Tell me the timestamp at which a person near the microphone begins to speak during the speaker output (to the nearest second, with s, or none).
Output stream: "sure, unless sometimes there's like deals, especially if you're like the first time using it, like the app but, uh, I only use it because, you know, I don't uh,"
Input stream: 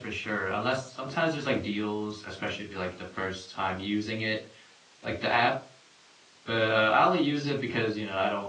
none